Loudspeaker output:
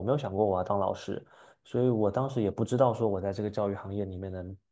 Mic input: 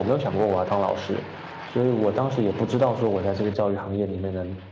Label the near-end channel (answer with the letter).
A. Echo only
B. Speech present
A